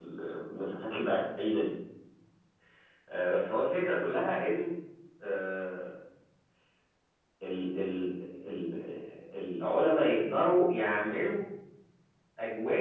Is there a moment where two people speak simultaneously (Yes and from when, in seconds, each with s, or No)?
No